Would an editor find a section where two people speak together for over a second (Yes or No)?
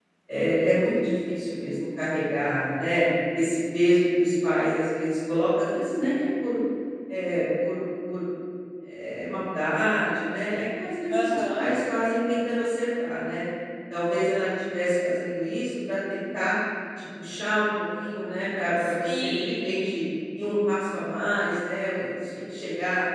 Yes